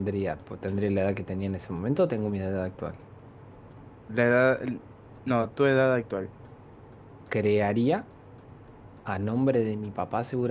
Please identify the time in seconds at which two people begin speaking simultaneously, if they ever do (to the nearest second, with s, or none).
none